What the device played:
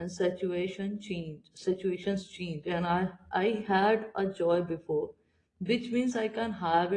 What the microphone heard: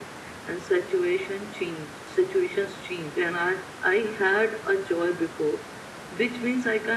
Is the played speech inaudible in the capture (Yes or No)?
No